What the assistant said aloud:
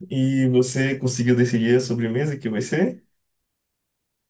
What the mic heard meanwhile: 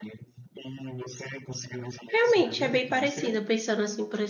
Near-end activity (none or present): present